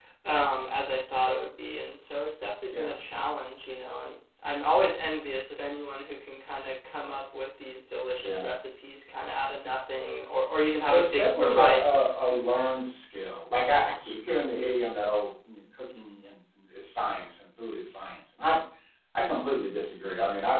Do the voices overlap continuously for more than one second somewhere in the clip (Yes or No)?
Yes